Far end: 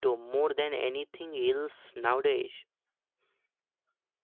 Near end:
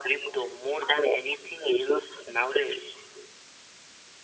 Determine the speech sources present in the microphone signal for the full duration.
echo only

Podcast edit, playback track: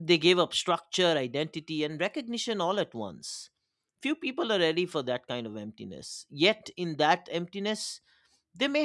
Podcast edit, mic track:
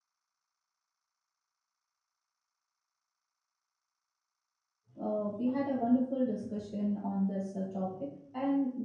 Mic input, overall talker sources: user only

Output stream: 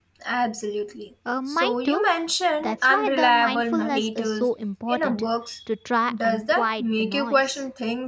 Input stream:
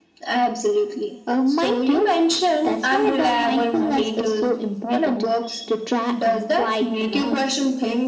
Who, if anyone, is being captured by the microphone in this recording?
echo only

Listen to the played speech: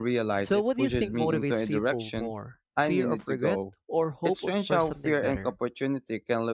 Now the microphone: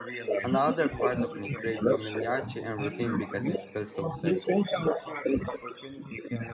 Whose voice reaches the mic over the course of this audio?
both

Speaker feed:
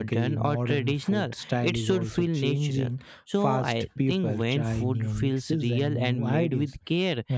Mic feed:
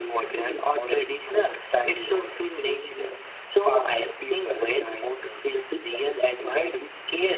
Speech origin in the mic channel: echo only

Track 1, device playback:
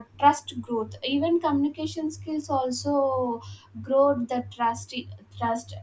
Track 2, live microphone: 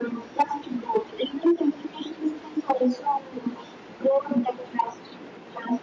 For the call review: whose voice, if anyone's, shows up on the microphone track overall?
echo only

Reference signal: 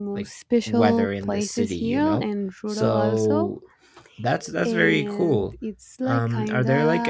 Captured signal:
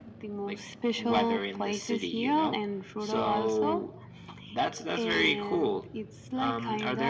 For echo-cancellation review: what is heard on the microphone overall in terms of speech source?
echo only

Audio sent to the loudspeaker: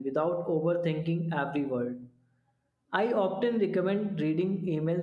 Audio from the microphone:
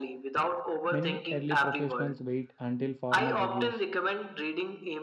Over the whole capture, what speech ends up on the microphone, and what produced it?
both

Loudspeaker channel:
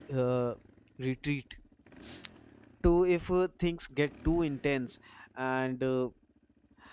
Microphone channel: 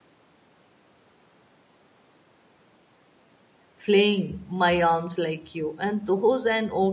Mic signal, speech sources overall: user only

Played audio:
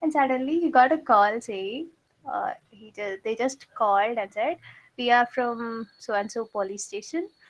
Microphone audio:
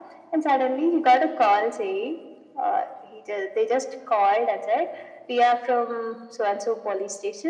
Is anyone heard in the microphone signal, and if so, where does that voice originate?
echo only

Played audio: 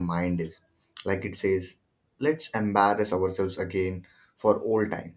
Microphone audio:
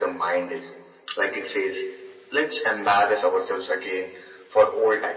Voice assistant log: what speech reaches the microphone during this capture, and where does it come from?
echo only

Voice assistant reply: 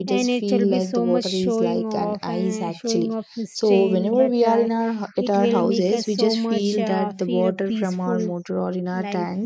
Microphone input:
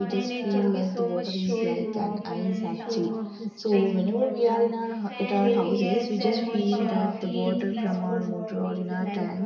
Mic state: both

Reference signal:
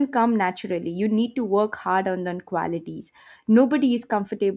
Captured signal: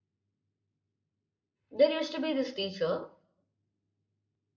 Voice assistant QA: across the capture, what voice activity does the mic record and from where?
user only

